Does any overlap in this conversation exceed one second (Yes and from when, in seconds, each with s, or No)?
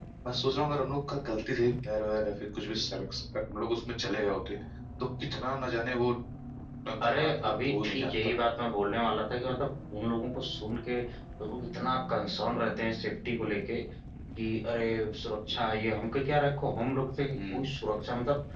Yes, from 7.0 s